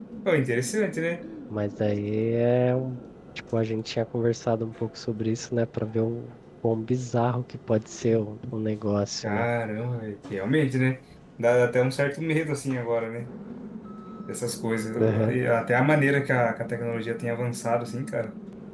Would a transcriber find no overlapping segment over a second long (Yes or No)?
Yes